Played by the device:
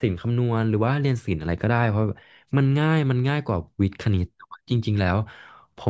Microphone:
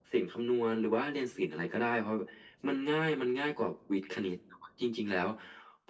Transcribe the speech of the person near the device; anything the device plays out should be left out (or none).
none